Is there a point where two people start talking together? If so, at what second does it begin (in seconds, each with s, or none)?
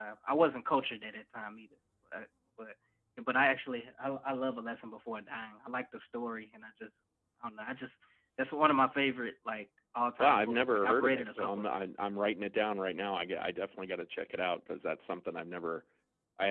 10.2 s